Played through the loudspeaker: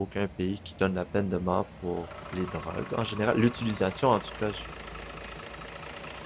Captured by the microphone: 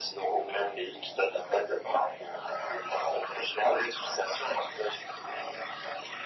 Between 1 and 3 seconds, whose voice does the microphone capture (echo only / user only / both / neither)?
echo only